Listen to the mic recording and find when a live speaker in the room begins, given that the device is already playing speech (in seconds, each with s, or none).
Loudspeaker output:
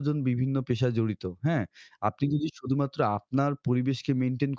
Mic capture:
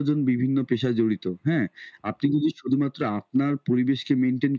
none